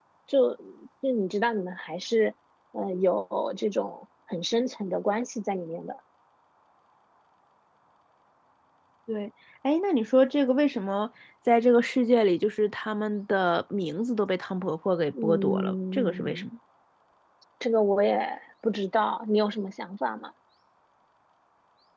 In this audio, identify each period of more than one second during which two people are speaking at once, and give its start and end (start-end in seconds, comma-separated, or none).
15.2-16.5